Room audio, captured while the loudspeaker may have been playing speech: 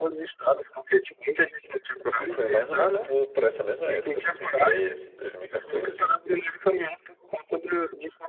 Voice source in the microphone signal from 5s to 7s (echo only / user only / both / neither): both